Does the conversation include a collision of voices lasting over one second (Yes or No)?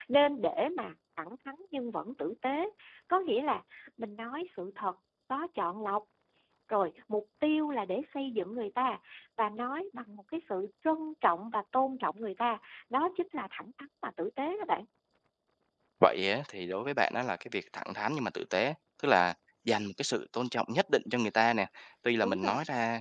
No